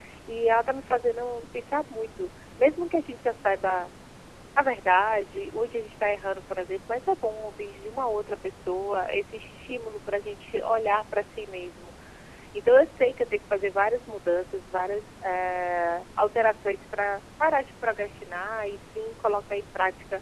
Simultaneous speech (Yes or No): No